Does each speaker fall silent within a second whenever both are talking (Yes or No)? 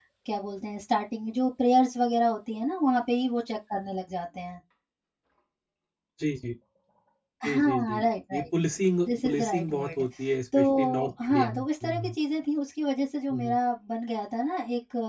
No